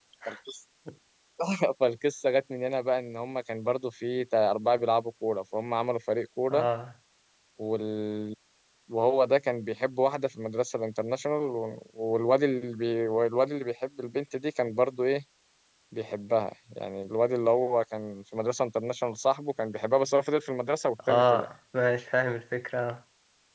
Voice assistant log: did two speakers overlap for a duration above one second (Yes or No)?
No